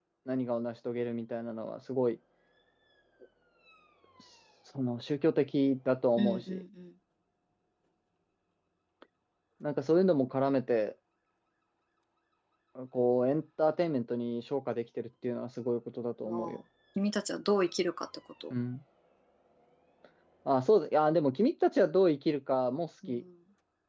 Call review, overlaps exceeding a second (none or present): none